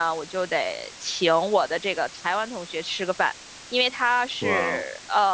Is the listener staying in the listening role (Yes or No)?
Yes